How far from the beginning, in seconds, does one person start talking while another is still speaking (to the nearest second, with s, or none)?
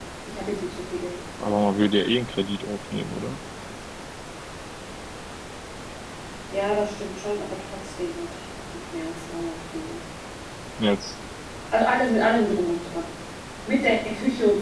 none